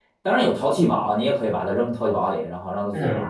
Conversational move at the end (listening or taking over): taking over